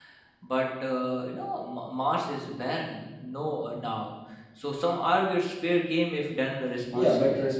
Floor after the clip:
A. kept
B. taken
B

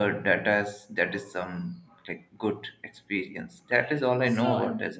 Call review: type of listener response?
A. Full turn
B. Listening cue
A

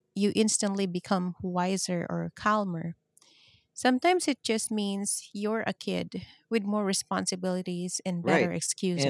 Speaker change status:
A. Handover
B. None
A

